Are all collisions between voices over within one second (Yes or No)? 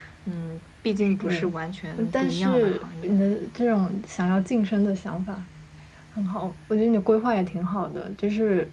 No